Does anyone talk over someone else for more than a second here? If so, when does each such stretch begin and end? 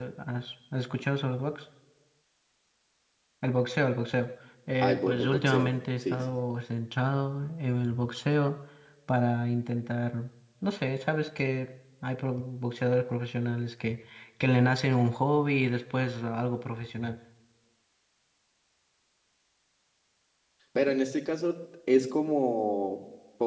4.8-6.2

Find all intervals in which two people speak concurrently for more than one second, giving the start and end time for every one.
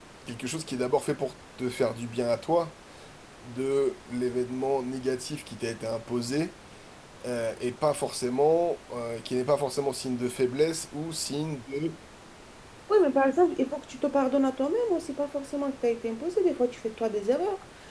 none

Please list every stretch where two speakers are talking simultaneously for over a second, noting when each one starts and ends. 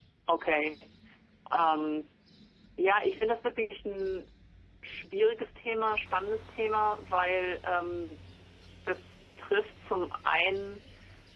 none

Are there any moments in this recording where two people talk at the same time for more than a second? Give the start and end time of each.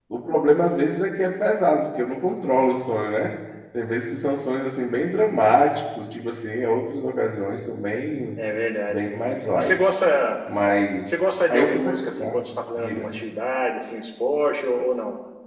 11.0-12.4

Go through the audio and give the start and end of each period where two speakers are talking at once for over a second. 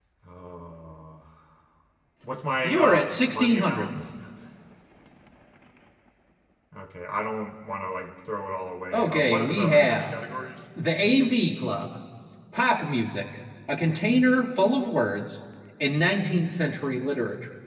2.6-3.9, 8.9-10.1

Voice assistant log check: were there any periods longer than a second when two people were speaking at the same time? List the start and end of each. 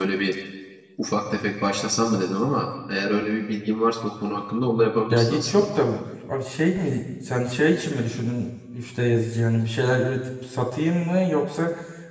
none

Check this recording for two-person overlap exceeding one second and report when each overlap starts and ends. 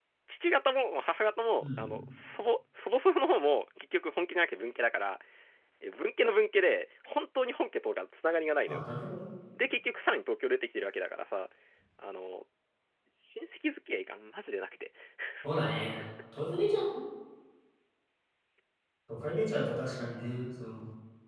none

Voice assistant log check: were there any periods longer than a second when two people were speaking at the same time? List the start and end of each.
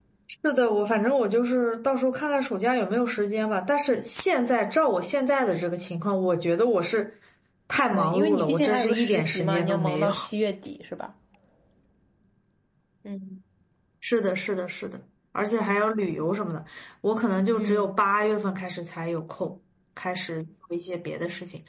7.9-10.1

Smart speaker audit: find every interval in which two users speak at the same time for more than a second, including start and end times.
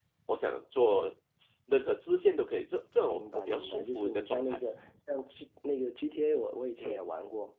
3.1-4.6

